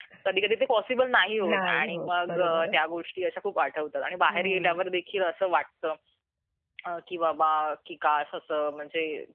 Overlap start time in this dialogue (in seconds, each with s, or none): 1.5 s